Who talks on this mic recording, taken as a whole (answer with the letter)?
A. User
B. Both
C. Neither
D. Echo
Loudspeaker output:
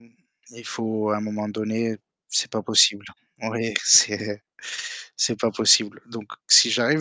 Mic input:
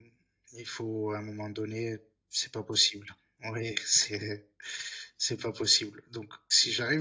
D